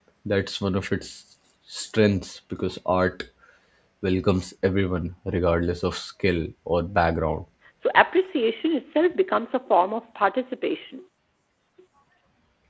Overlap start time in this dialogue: none

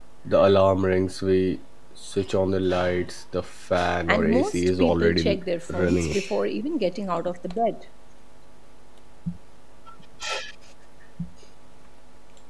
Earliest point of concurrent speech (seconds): 4.1 s

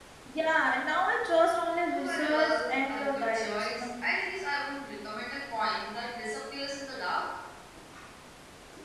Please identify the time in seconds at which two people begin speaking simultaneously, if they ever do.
1.9 s

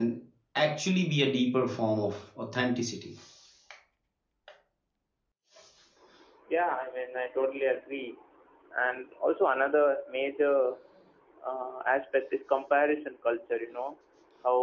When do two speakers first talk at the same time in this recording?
none

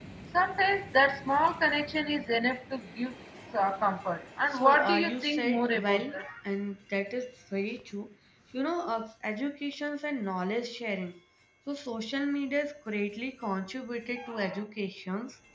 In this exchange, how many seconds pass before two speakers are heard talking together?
4.5 s

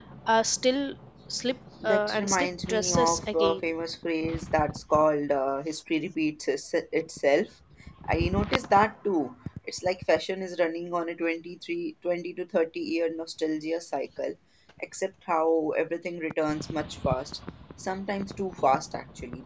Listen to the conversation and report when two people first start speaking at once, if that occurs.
1.8 s

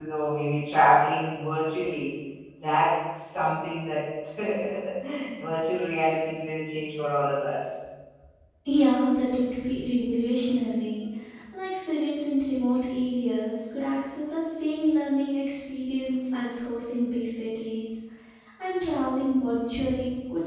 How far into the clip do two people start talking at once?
none

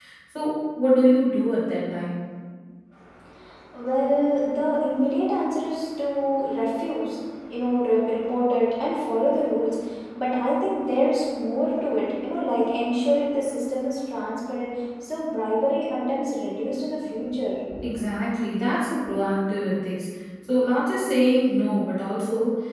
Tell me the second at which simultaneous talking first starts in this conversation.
none

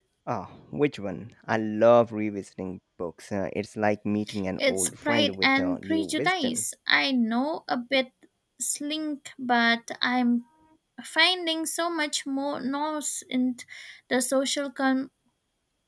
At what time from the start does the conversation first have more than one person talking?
4.6 s

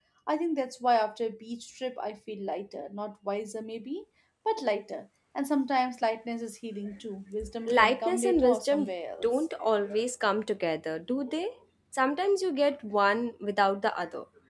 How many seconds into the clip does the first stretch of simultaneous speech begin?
7.4 s

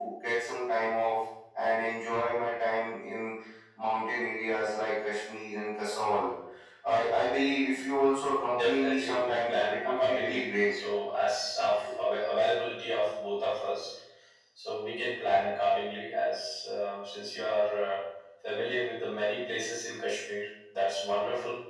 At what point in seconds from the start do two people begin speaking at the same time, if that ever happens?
8.5 s

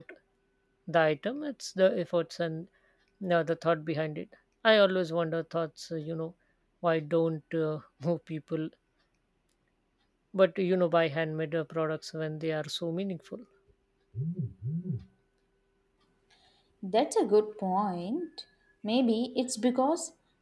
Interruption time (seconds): none

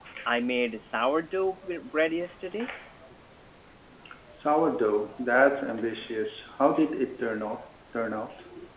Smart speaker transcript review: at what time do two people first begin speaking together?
none

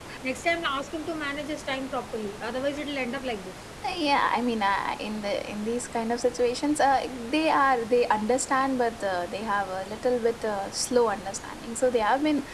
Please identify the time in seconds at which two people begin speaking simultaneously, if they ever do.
none

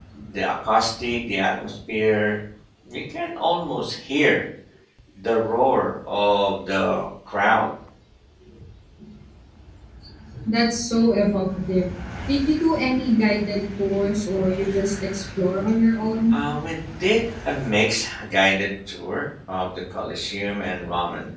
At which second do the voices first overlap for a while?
none

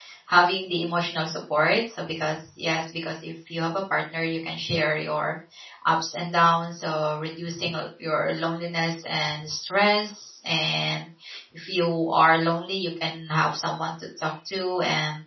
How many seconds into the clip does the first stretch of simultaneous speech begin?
none

